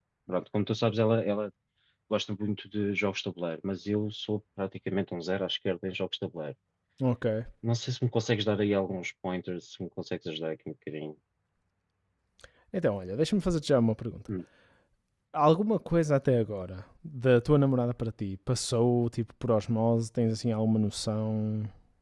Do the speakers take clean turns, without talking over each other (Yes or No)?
Yes